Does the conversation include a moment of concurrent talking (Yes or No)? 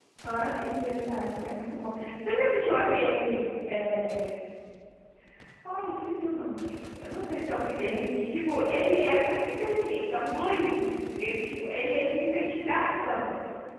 No